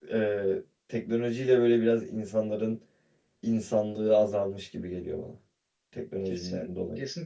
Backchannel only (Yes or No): No